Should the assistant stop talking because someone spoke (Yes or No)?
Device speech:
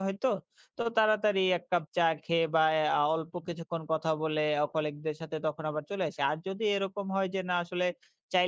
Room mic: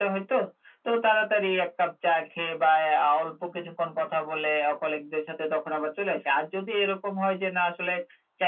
No